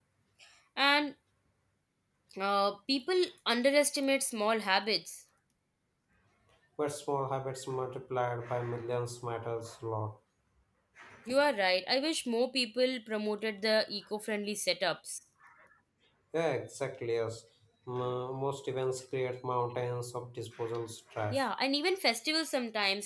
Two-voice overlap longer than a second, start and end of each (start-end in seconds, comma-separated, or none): none